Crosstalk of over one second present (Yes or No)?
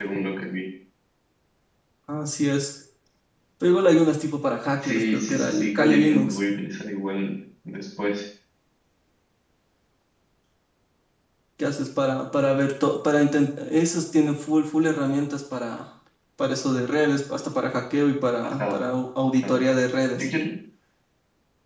Yes